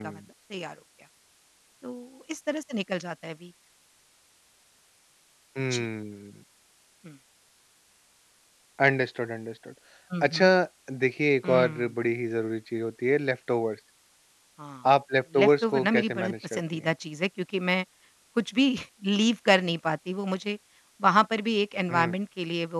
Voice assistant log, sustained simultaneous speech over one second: present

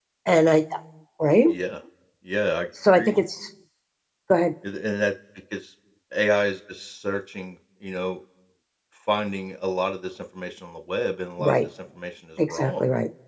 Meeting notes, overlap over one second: none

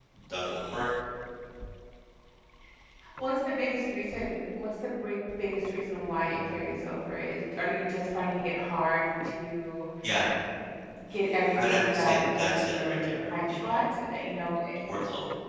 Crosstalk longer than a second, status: present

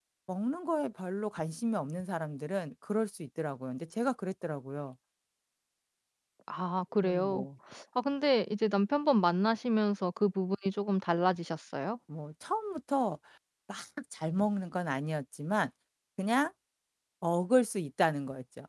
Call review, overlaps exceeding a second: none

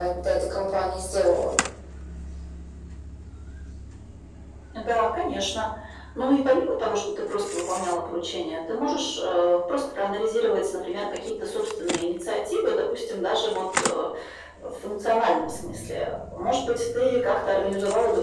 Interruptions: none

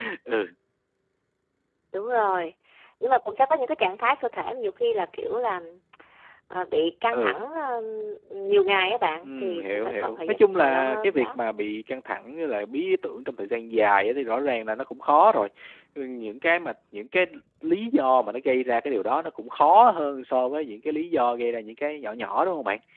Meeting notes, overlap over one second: present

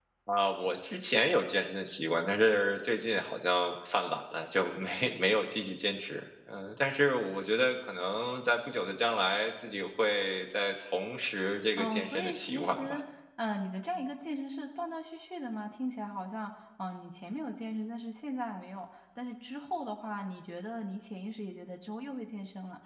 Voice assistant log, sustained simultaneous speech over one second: present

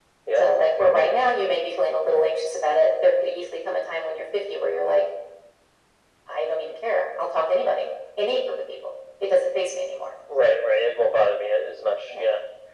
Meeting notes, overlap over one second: none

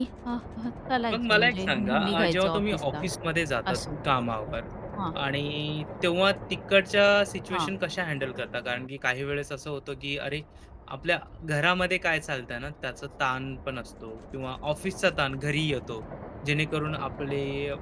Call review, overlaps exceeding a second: present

